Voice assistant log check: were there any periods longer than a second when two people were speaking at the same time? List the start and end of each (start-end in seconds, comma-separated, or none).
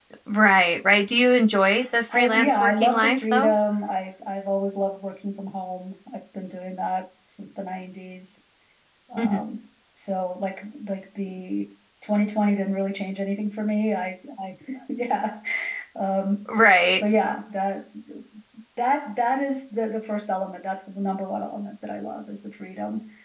2.1-3.5